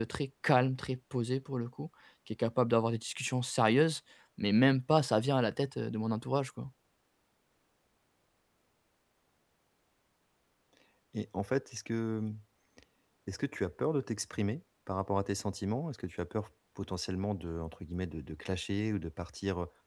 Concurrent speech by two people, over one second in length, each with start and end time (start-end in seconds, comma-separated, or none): none